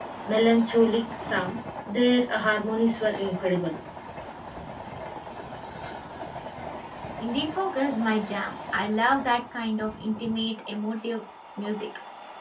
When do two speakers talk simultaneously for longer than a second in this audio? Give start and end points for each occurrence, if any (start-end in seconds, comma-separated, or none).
none